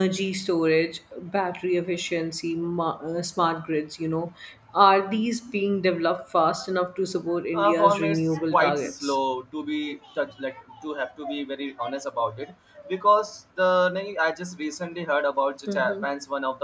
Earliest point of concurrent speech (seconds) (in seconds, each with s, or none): 7.5 s